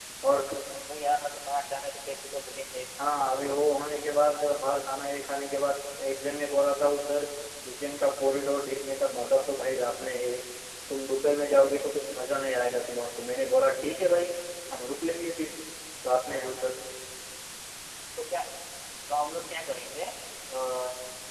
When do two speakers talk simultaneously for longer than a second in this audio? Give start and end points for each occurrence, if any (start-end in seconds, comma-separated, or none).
none